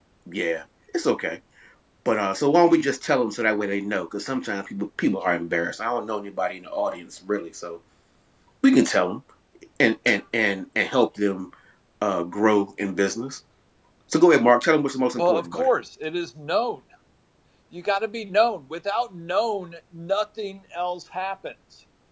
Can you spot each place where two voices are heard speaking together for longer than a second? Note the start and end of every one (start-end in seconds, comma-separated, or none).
none